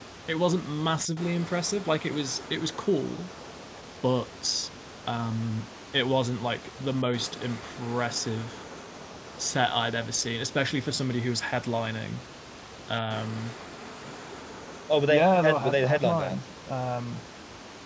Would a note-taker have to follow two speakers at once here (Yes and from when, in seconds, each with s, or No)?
Yes, from 15.1 s